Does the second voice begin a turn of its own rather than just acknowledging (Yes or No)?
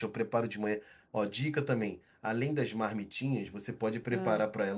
No